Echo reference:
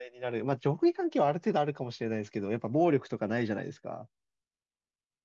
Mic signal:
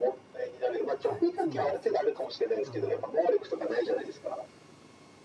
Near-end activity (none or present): present